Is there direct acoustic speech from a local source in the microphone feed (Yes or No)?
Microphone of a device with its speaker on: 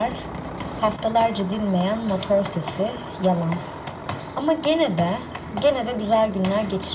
No